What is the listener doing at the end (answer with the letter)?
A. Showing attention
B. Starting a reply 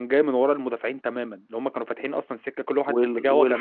B